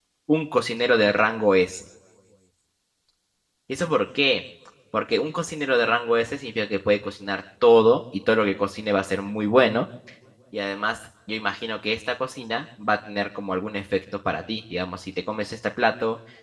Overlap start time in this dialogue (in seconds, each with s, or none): none